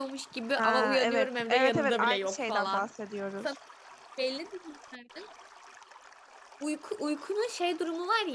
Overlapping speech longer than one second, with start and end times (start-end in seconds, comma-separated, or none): 0.6-2.9